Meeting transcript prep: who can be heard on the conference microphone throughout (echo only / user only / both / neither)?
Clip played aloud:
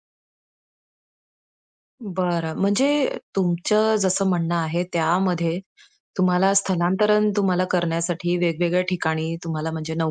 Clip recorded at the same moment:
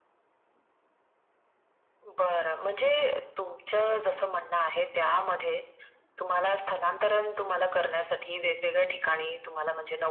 echo only